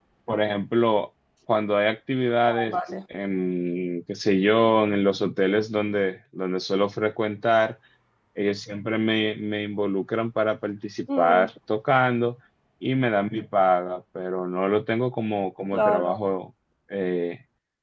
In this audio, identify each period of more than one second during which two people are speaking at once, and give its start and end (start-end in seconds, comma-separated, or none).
none